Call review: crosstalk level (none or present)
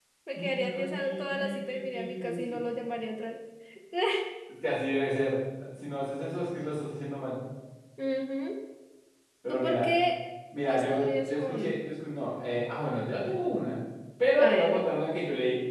present